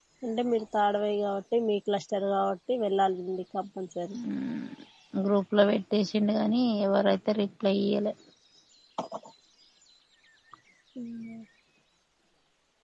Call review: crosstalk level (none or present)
none